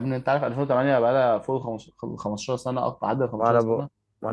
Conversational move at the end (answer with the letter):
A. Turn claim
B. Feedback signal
A